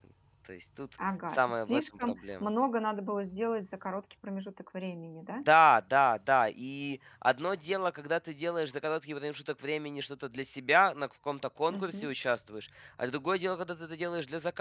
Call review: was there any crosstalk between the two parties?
Yes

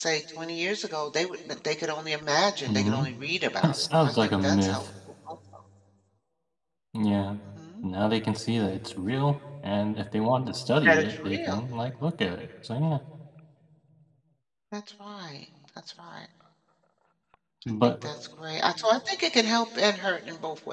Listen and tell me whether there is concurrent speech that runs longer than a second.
Yes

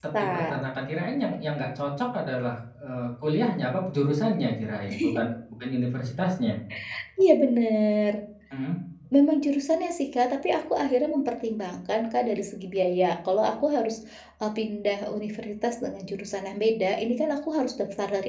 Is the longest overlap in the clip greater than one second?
No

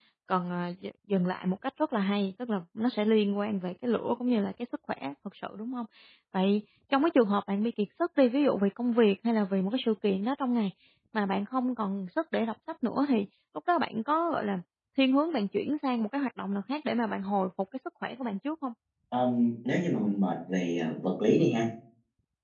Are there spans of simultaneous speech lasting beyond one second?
No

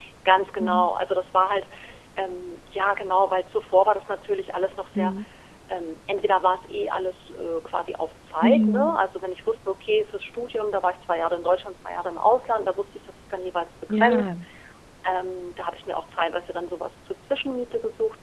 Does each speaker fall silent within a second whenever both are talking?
Yes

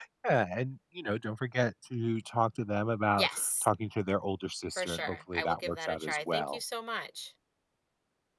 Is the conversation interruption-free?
No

